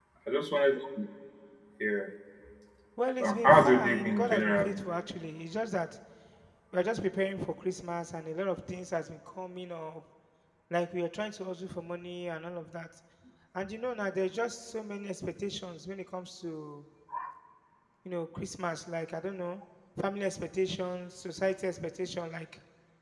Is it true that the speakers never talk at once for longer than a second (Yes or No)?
No